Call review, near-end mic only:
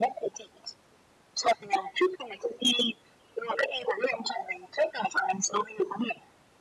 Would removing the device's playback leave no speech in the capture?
Yes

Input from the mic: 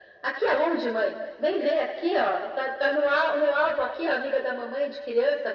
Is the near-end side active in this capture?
No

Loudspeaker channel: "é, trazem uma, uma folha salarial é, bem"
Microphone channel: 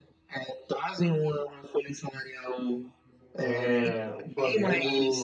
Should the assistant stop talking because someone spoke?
Yes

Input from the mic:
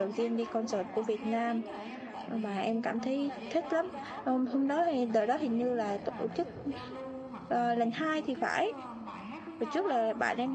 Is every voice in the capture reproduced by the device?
No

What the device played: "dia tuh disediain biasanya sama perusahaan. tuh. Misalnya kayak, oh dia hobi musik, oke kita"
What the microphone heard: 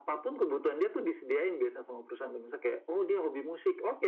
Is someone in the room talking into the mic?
No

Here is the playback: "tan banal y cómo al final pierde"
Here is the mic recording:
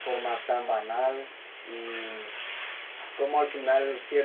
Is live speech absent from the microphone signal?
Yes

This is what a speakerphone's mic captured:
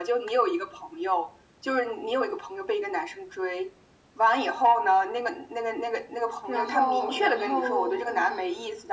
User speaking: Yes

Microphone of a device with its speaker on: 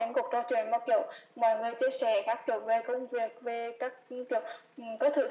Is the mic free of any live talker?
Yes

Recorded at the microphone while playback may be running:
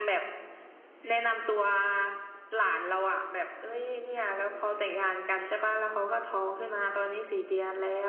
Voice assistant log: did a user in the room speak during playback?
No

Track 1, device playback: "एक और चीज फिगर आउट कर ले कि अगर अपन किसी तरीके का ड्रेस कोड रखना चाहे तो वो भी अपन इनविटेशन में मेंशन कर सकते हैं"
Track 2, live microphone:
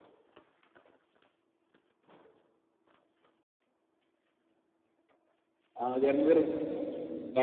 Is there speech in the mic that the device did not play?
Yes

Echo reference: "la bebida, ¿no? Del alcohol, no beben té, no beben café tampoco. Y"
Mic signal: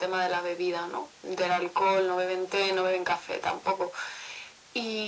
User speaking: No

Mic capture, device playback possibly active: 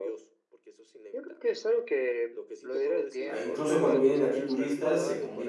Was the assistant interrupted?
Yes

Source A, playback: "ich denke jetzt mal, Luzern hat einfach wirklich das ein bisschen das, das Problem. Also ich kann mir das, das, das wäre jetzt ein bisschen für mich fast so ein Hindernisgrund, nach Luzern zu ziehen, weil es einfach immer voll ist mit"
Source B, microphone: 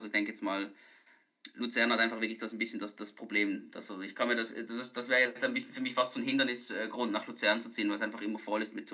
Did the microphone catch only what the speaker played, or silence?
Yes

